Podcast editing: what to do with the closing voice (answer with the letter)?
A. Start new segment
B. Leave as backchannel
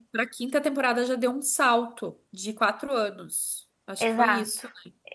A